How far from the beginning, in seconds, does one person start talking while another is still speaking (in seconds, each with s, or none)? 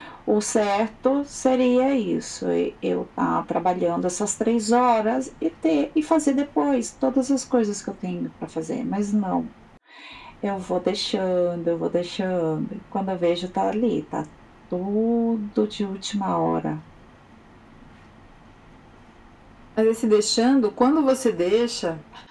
none